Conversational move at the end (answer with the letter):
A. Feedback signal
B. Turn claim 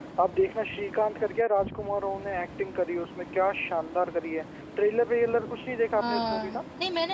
B